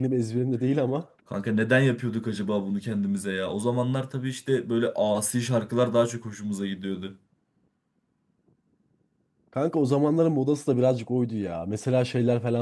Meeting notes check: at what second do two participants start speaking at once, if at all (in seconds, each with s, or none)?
none